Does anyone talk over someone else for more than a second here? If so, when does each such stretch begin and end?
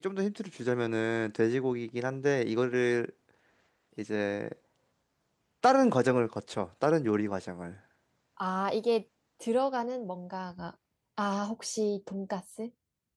none

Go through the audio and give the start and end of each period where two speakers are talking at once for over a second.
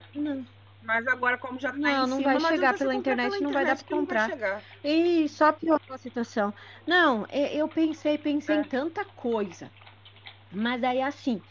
1.7-4.3

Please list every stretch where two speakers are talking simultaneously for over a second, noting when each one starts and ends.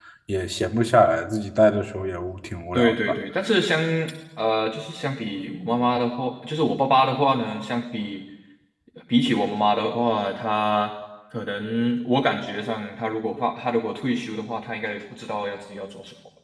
none

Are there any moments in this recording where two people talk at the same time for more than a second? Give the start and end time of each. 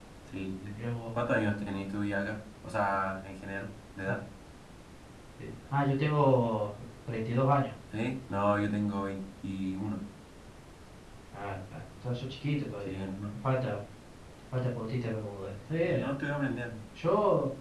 none

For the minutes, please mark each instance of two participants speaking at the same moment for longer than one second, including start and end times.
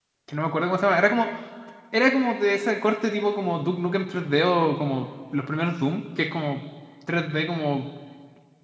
none

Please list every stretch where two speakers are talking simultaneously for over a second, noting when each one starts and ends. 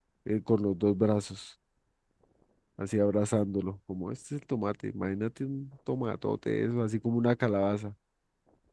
none

